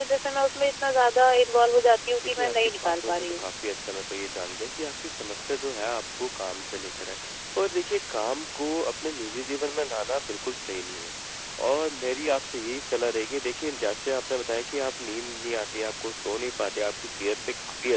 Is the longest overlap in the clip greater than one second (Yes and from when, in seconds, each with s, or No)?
Yes, from 2.2 s